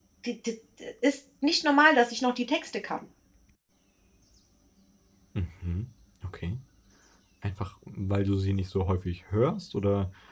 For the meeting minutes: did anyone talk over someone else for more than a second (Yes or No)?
No